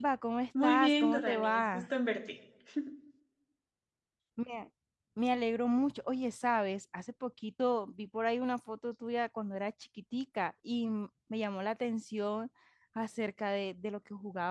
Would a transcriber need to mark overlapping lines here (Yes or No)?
Yes